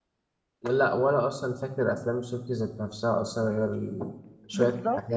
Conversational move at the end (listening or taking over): taking over